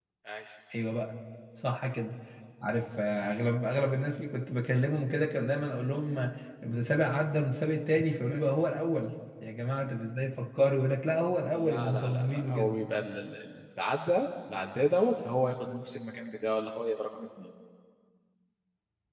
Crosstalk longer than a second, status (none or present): present